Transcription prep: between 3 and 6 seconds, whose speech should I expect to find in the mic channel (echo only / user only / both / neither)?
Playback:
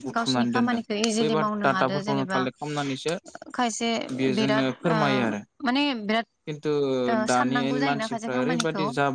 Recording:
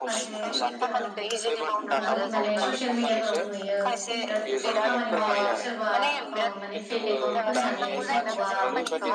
both